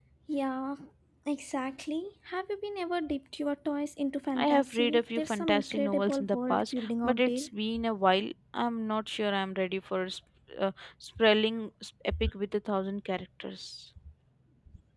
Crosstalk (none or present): present